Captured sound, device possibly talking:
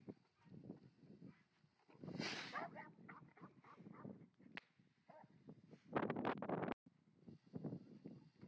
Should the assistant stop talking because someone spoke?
No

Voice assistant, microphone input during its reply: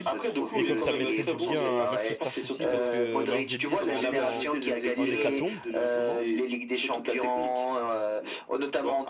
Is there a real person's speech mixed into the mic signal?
Yes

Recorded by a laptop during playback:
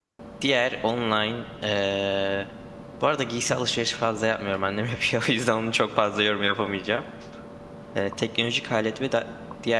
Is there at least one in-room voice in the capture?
Yes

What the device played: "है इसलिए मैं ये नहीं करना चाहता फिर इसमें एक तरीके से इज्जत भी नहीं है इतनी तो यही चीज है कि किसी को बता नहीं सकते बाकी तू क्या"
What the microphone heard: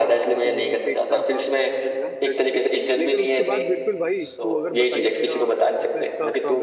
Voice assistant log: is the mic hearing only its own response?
No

